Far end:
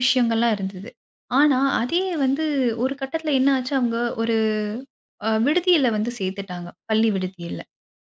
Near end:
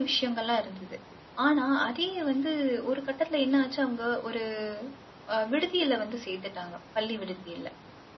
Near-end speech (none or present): none